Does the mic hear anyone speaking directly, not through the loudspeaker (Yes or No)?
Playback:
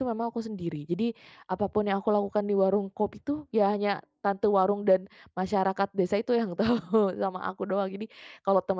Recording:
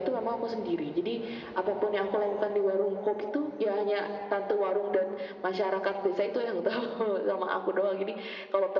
No